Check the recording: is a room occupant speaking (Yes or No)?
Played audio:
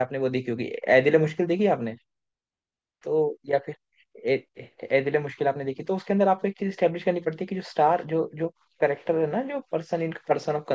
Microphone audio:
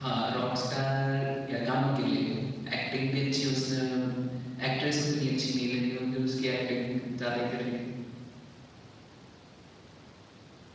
Yes